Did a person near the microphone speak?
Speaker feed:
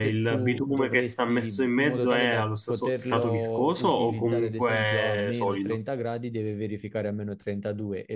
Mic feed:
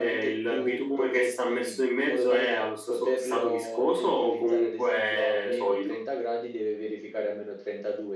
No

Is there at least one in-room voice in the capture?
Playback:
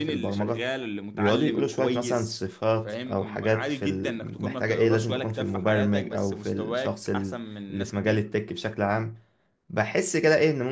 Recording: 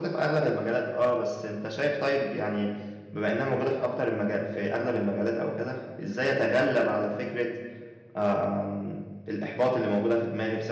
Yes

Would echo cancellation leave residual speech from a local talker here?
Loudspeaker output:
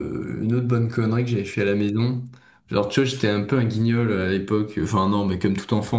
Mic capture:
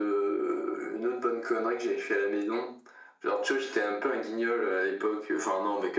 No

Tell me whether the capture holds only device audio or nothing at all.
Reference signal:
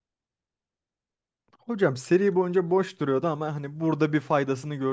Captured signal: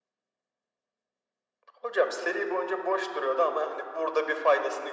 Yes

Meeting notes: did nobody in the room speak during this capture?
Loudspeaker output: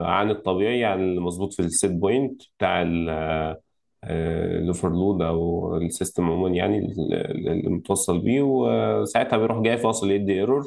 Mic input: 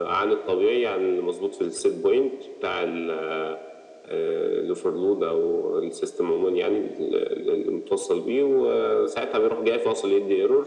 Yes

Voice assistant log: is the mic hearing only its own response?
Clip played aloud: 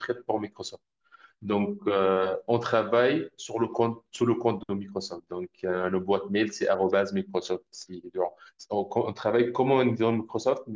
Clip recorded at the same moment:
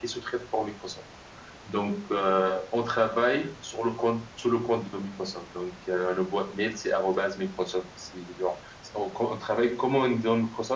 Yes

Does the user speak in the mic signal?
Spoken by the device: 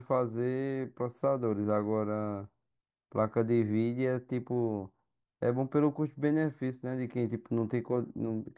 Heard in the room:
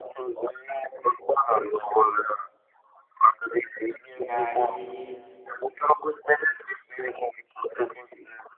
Yes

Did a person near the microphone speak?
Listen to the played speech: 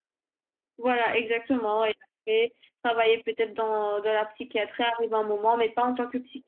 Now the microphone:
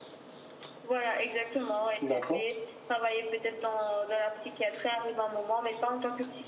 Yes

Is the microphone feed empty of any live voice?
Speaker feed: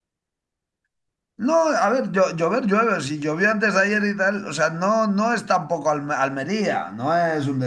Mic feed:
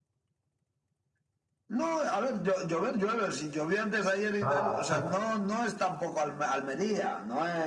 No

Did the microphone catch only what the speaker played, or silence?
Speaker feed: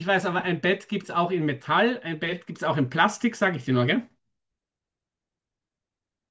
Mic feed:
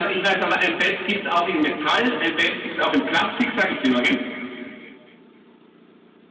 Yes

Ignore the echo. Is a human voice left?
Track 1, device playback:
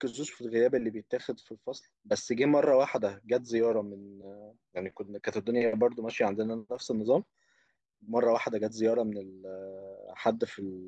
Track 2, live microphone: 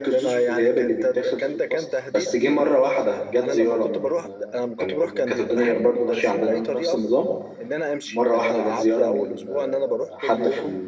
Yes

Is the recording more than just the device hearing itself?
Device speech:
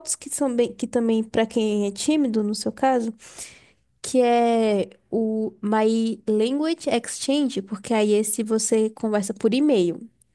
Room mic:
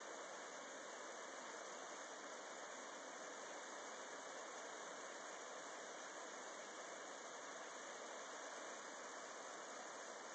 No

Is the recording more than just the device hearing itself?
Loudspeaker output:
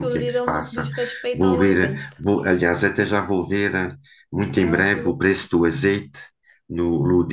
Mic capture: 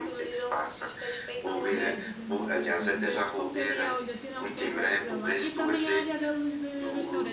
Yes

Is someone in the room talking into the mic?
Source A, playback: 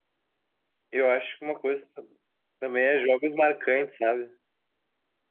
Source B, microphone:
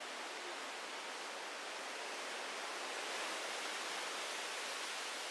No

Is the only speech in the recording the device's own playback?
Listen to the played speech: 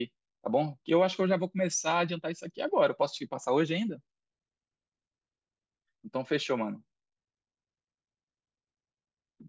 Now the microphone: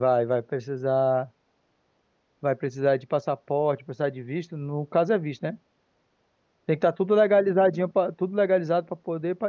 No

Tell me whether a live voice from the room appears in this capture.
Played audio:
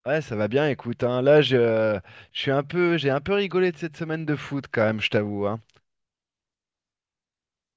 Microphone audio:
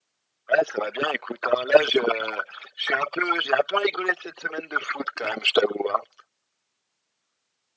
No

